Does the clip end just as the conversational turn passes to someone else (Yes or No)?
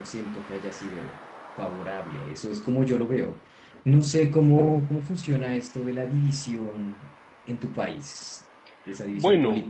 Yes